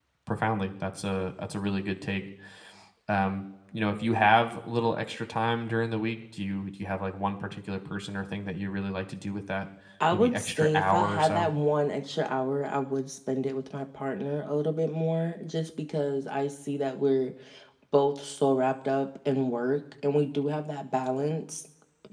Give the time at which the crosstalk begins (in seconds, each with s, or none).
10.1 s